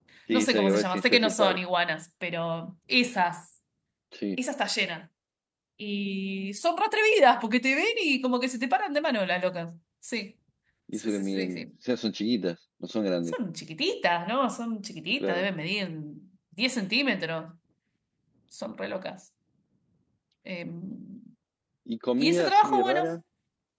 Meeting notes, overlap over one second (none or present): present